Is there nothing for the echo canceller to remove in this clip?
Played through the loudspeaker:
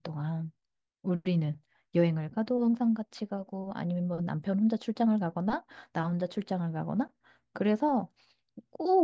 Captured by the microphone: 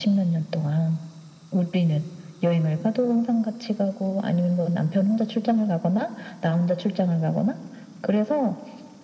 No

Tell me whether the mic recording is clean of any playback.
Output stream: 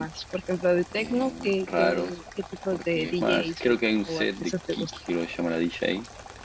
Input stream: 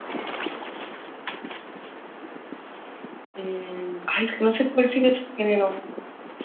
Yes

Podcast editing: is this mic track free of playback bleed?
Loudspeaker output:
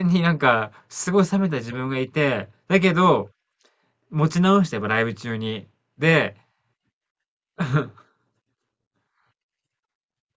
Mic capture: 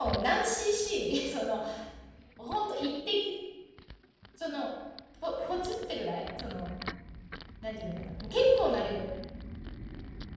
Yes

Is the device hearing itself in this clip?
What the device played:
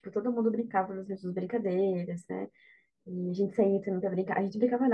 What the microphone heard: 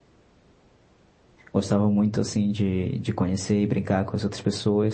No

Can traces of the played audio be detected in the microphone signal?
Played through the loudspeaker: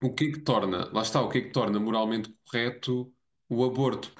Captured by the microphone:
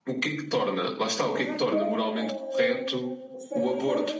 Yes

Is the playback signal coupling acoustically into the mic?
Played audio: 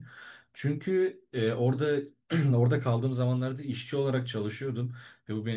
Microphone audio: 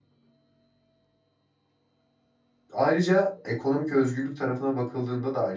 No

